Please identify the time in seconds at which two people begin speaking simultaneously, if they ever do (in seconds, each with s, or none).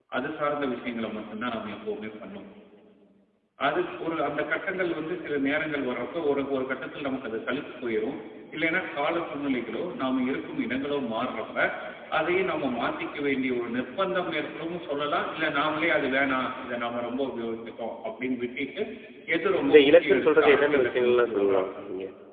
19.6 s